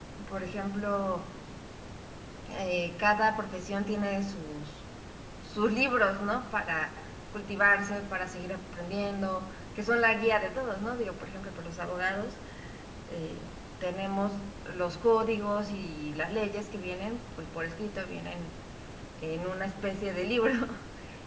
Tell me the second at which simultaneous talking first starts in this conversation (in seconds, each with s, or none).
none